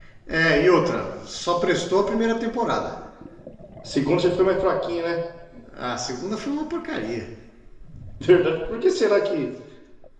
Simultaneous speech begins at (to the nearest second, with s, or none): none